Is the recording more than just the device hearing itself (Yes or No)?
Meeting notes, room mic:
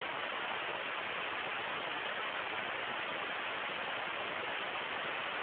No